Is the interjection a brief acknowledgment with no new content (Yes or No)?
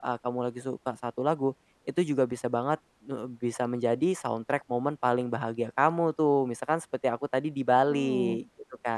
No